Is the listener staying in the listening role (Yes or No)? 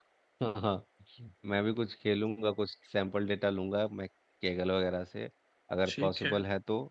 Yes